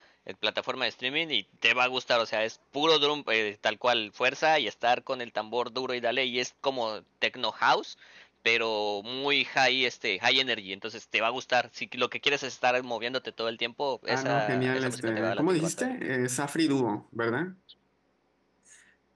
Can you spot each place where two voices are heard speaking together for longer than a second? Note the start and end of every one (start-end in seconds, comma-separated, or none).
14.1-15.9